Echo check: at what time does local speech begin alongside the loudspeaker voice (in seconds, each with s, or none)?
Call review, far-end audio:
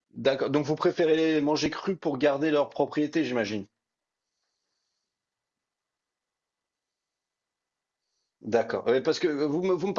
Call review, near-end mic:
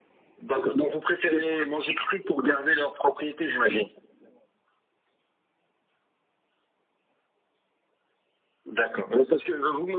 none